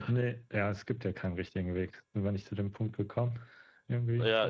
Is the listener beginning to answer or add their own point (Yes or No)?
Yes